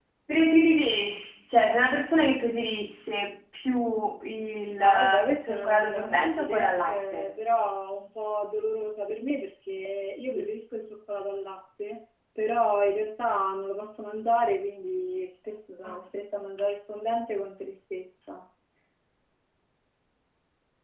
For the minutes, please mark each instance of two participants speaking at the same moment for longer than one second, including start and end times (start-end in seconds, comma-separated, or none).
4.8-7.4